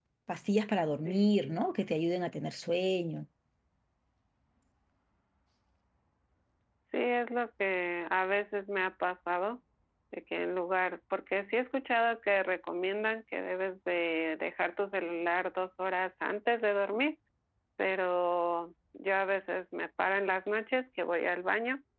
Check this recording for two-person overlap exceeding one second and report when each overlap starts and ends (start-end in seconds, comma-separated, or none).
none